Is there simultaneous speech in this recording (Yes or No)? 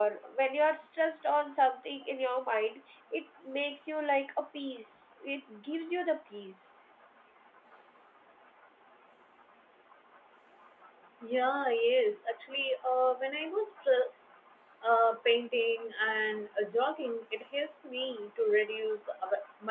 No